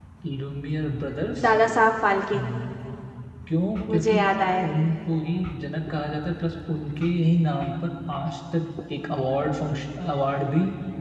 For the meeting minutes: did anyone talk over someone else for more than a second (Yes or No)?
No